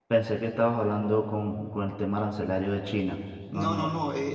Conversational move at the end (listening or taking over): taking over